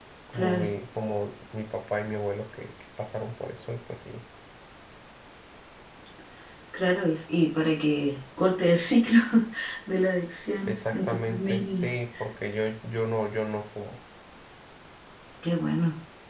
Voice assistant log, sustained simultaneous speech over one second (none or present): present